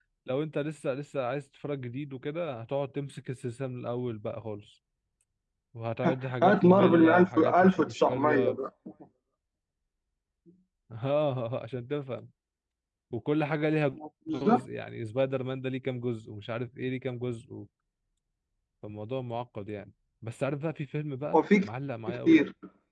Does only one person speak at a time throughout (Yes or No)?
No